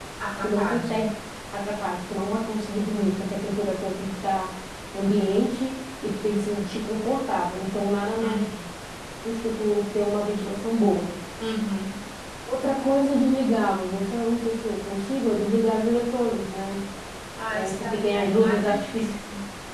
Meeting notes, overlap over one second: present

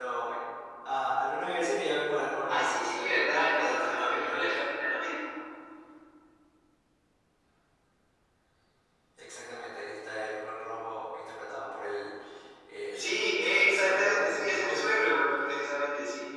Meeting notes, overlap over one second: present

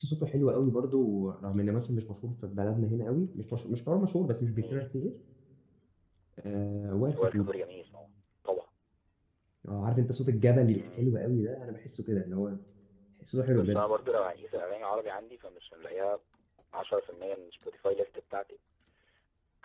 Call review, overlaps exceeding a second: none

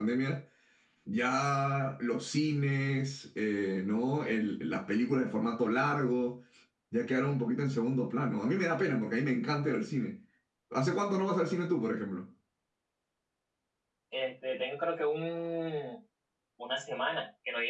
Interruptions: none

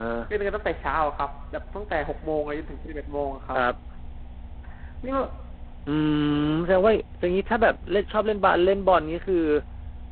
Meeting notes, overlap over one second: none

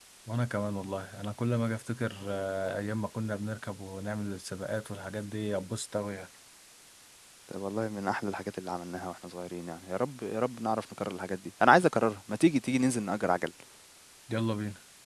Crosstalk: none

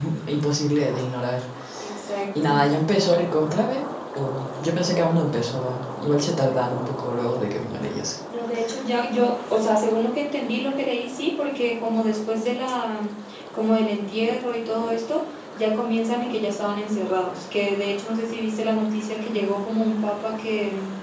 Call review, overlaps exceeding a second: none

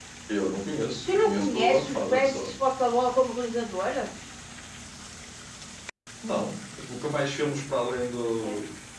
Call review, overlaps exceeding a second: present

